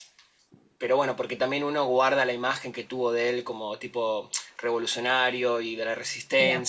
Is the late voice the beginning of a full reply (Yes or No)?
Yes